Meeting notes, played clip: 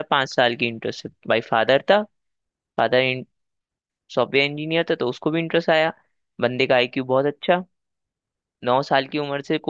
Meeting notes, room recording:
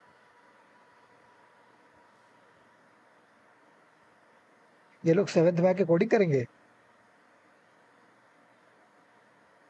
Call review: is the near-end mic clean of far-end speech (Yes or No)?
Yes